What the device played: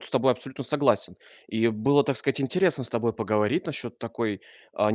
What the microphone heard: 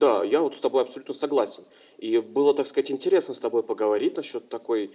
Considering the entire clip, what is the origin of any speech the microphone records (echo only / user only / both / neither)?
echo only